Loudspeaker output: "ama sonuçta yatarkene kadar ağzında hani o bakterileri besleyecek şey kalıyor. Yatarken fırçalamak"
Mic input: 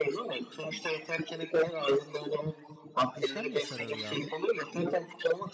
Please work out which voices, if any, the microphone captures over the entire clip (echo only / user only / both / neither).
both